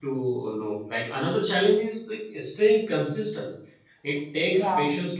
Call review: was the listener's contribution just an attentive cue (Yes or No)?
Yes